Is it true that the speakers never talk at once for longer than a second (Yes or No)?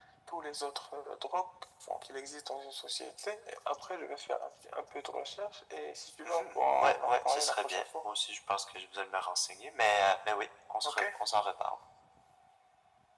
No